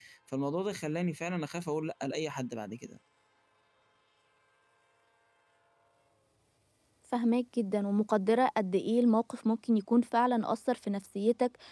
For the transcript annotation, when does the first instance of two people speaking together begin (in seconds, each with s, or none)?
none